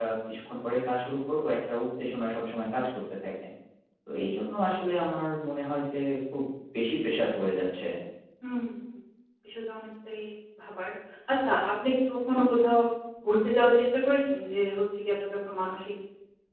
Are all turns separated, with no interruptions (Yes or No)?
Yes